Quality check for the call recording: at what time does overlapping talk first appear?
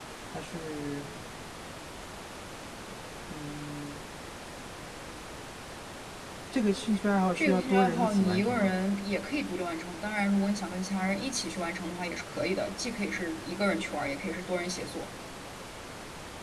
7 s

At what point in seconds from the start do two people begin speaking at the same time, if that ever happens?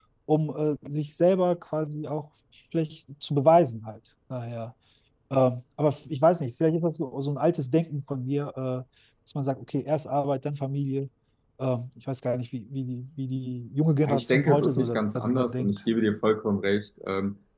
14 s

